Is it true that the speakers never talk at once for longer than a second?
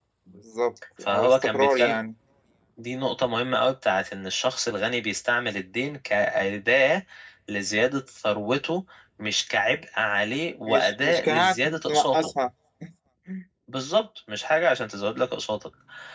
No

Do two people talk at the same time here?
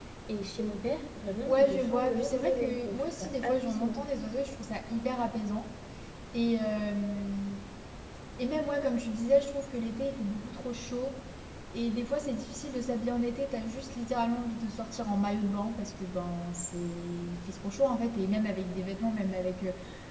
Yes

